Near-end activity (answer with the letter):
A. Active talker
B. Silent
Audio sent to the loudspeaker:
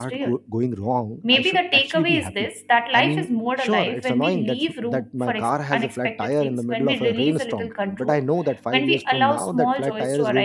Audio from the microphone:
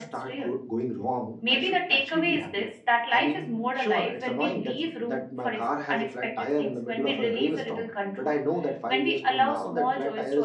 B